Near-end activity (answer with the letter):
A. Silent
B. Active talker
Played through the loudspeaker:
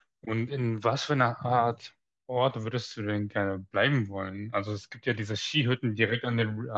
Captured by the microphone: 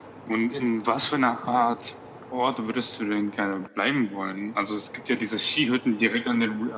A